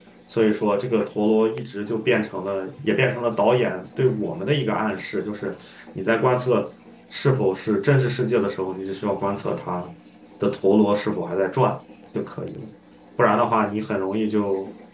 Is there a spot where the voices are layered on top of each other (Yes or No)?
No